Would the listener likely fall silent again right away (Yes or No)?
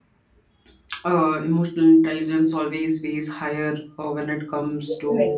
Yes